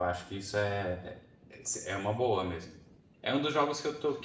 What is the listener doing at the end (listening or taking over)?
listening